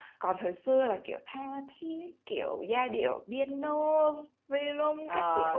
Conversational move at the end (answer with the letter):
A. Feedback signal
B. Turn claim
B